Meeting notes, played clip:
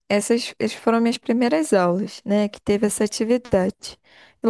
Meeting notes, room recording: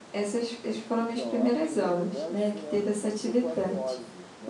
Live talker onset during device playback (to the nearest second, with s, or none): 1 s